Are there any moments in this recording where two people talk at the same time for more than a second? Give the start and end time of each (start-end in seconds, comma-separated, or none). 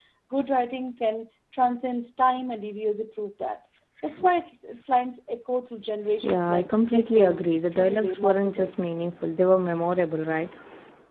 6.2-8.7